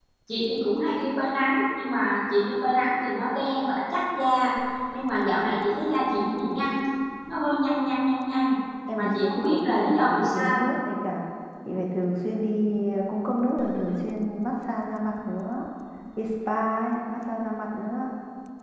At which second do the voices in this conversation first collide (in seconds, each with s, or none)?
8.9 s